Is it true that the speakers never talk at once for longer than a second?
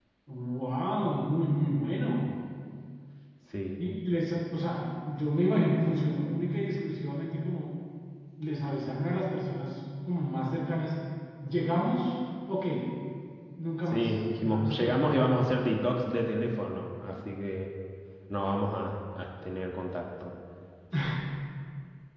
No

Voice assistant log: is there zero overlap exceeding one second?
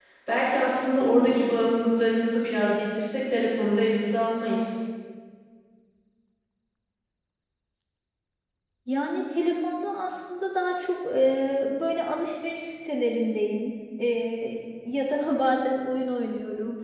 Yes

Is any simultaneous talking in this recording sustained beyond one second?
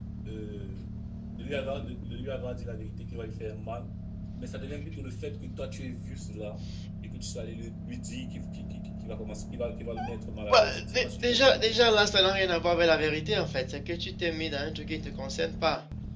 Yes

